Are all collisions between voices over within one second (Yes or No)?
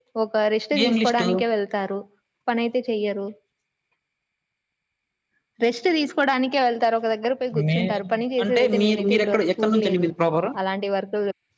No